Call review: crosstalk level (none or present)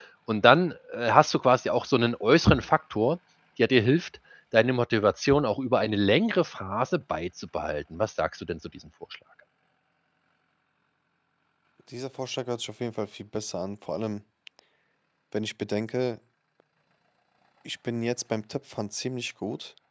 none